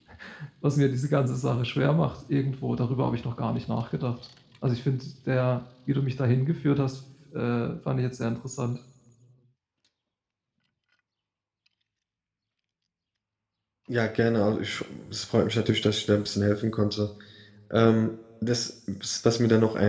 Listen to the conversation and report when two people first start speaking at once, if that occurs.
none

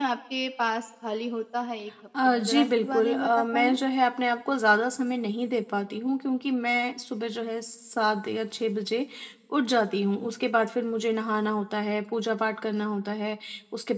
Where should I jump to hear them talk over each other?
2.1 s

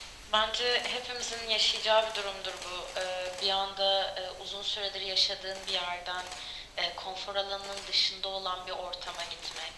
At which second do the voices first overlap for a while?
none

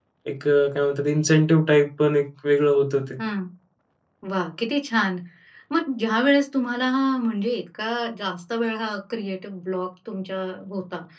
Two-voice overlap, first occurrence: none

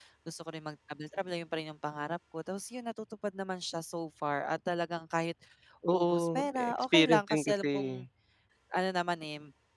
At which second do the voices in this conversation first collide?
5.9 s

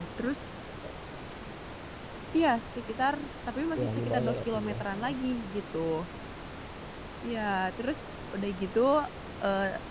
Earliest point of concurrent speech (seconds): 3.8 s

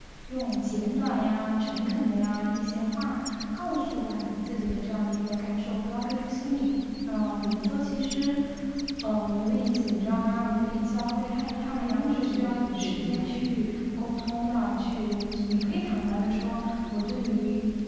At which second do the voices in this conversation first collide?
11.8 s

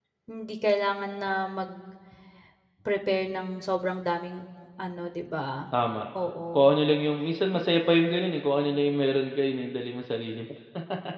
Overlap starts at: none

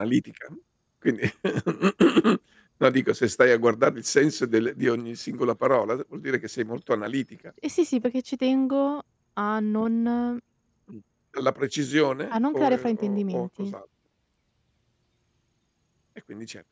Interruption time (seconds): 12.3 s

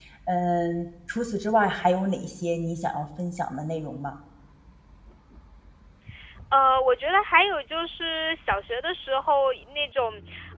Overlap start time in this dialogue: none

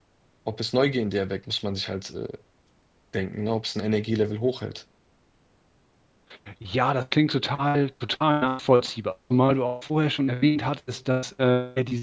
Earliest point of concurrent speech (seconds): none

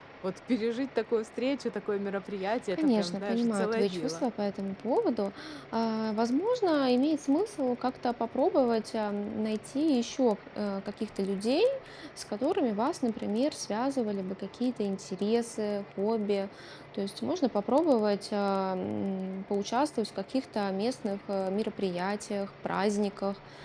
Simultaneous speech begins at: 2.7 s

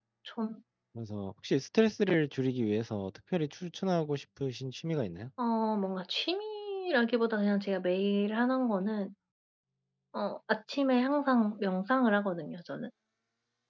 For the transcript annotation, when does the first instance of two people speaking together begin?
none

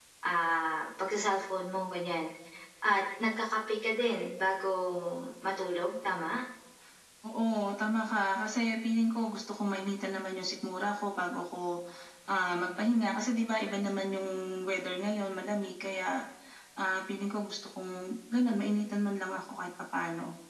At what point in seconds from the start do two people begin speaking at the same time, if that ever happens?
none

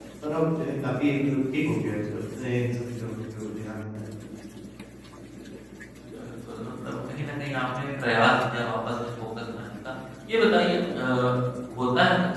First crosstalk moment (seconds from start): none

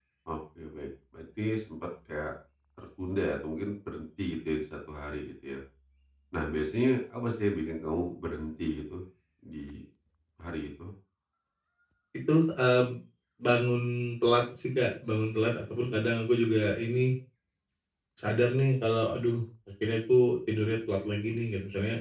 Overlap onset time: none

